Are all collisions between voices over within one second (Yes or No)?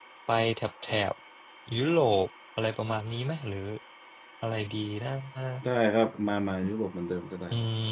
Yes